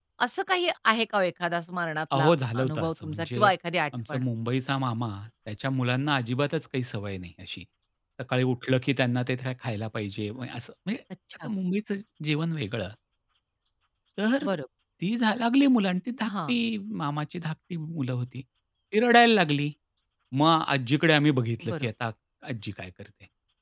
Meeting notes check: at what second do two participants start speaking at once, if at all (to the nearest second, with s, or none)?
2 s